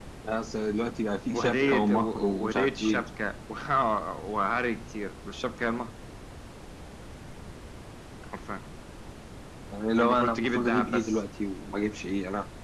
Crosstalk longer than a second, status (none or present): present